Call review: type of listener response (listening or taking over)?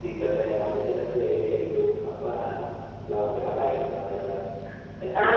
taking over